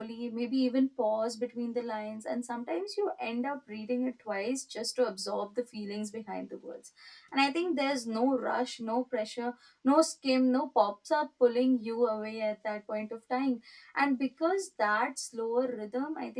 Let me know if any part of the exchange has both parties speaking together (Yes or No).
No